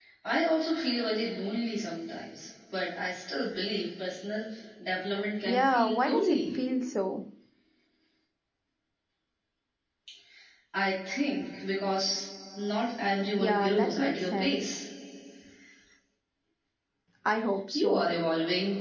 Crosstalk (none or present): present